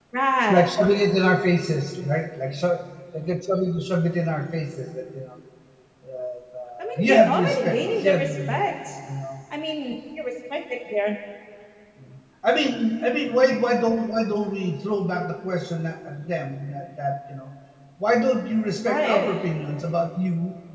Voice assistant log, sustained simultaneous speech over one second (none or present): present